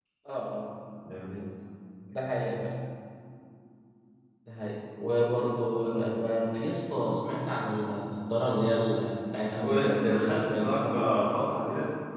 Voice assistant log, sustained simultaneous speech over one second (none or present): present